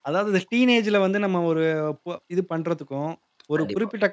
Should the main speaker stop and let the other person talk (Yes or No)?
No